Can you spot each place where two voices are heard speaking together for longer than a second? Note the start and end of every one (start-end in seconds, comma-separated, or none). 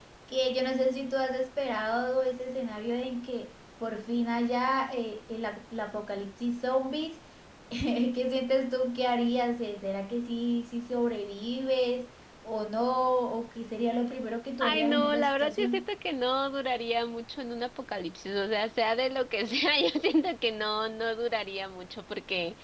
14.6-15.9